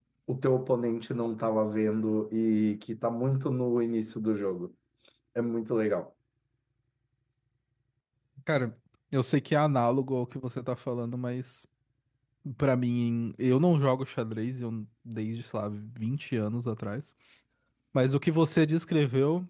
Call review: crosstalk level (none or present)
none